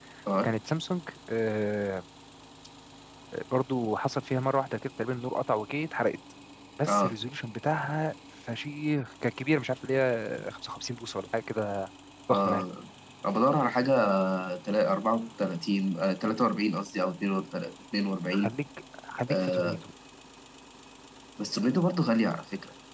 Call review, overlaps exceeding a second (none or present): none